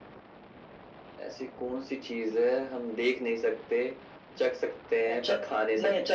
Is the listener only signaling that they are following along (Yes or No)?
No